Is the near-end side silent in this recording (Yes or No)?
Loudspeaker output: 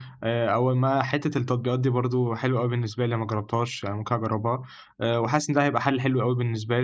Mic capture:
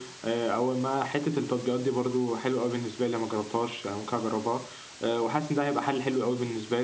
Yes